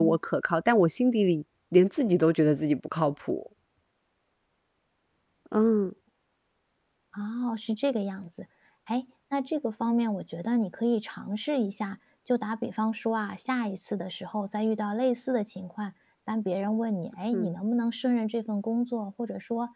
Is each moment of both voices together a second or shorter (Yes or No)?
Yes